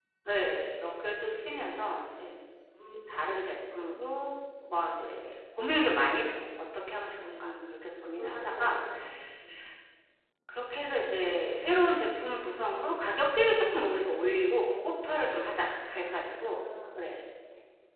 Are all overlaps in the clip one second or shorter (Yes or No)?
No